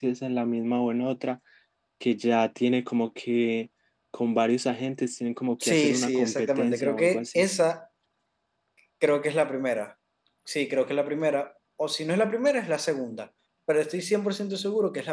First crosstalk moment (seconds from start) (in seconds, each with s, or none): 5.6 s